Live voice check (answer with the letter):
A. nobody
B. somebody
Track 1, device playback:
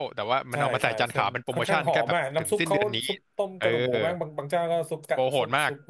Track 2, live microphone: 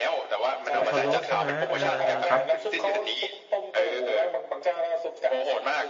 B